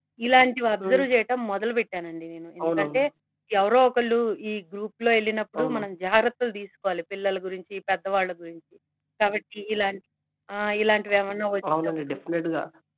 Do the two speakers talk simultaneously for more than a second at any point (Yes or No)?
No